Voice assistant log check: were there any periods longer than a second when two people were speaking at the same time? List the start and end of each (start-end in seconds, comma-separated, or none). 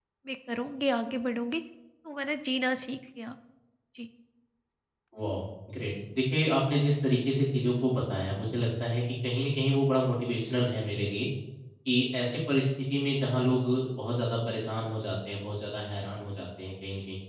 none